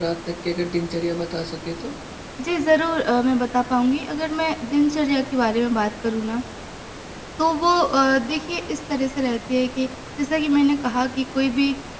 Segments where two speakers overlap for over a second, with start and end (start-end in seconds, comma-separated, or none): none